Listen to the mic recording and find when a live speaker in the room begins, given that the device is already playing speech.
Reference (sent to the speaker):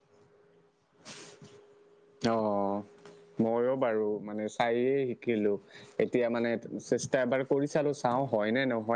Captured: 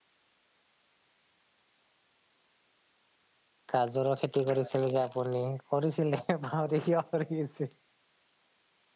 3.7 s

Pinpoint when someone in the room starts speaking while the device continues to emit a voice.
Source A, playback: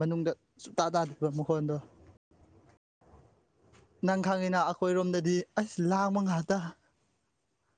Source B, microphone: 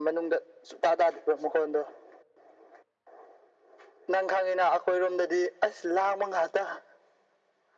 none

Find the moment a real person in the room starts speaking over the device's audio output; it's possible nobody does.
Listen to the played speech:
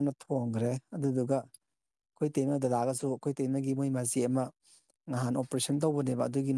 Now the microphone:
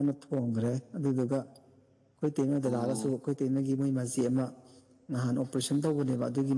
2.6 s

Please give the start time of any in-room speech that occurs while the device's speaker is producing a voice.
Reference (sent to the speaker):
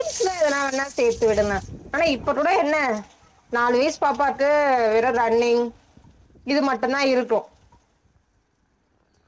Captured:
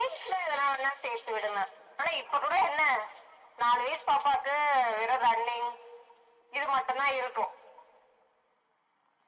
none

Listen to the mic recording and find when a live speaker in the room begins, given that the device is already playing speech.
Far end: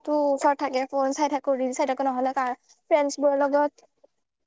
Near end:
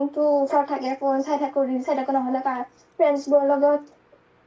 none

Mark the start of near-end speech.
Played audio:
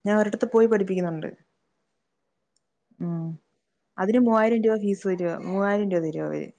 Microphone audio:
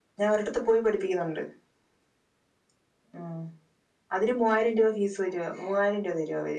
none

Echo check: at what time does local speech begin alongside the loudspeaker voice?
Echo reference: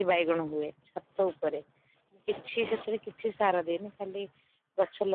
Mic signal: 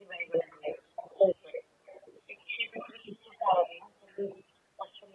none

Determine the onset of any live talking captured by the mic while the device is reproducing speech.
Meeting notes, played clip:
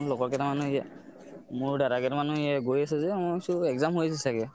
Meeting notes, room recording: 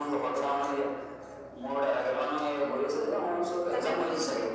3.0 s

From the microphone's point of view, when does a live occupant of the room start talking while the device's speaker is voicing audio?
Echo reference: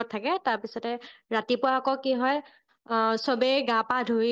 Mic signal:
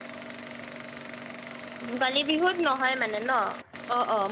1.9 s

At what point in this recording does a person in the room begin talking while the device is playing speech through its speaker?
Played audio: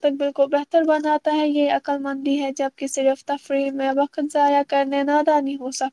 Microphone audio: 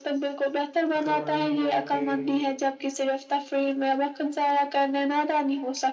1.0 s

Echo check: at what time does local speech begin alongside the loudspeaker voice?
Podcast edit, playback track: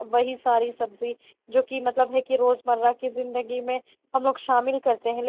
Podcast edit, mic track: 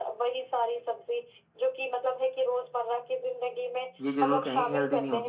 4.0 s

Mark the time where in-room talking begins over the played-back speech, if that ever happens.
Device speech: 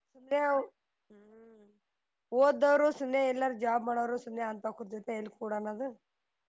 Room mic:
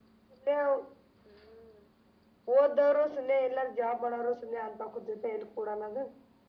none

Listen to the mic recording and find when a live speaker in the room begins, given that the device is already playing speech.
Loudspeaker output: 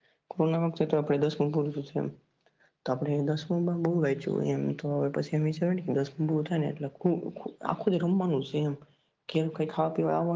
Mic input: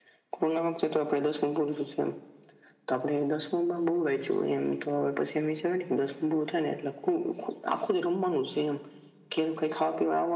none

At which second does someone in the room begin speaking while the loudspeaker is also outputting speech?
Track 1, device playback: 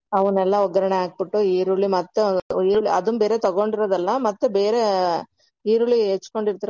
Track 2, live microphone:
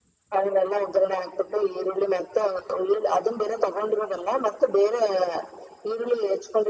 none

